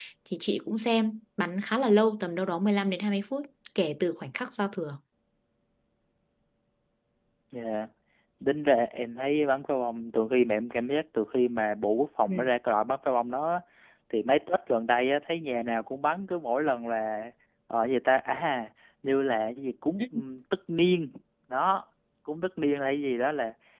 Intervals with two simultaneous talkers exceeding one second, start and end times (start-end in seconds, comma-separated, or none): none